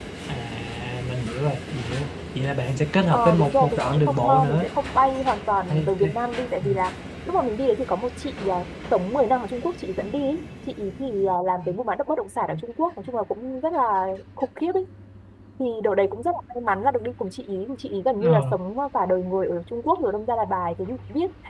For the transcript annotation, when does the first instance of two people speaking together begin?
3.1 s

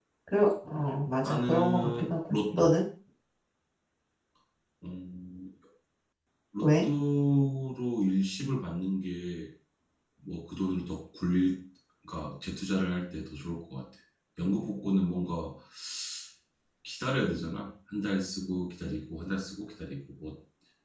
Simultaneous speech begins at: 1.2 s

